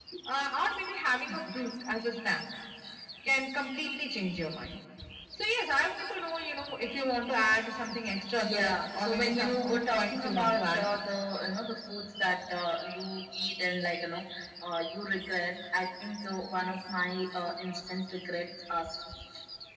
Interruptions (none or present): present